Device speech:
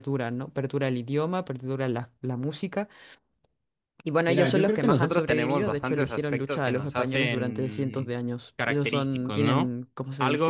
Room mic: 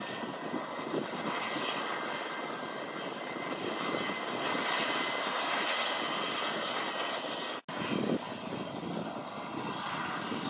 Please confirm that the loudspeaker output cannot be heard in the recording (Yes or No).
Yes